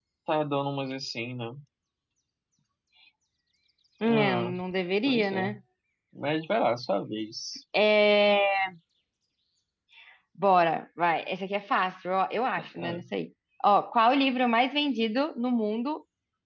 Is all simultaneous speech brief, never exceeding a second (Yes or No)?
Yes